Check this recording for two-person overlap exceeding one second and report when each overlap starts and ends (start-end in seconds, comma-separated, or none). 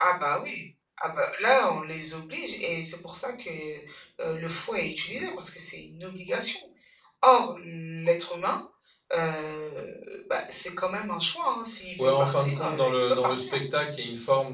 12.0-13.6